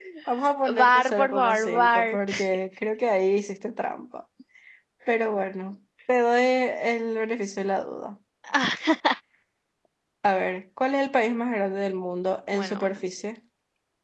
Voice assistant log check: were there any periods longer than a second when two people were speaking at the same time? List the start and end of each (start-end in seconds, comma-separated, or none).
0.8-2.2